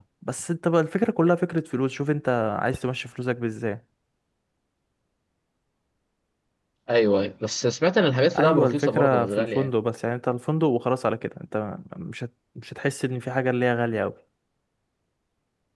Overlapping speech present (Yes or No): Yes